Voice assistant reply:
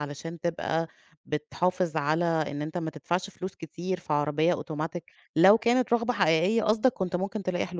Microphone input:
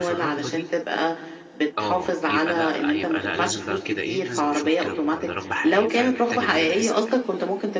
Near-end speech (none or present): present